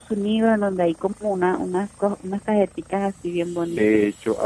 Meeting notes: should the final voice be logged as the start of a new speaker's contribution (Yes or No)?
Yes